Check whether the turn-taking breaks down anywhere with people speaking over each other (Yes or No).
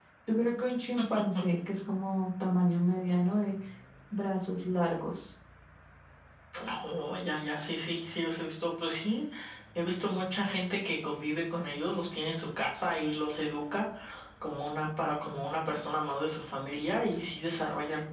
No